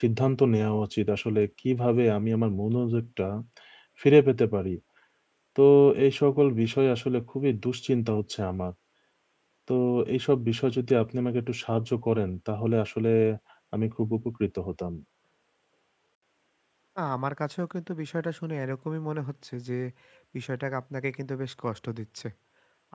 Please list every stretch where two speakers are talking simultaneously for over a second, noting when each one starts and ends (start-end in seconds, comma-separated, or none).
none